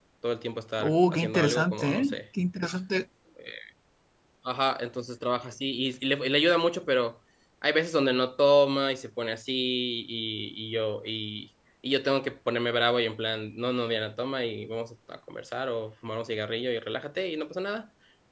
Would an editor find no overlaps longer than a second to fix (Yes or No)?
No